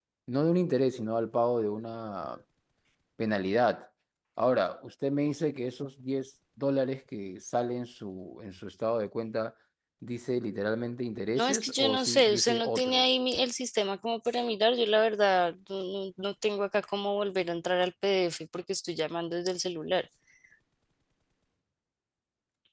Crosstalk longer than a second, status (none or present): present